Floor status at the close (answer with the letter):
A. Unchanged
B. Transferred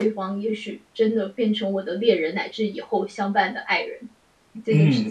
B